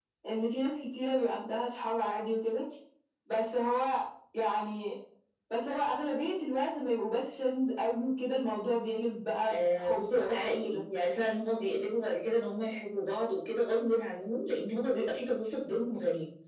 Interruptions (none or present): present